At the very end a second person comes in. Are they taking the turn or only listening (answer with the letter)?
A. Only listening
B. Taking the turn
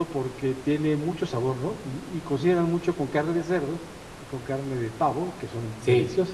B